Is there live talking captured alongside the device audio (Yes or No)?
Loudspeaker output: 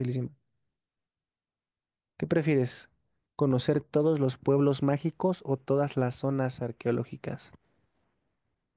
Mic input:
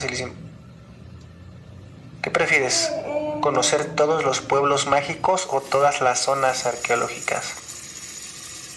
Yes